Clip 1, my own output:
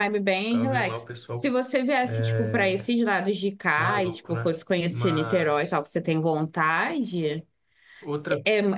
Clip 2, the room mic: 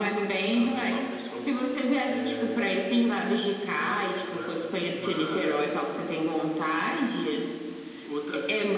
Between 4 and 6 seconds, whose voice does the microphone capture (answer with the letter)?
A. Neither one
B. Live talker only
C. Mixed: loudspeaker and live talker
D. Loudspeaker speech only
D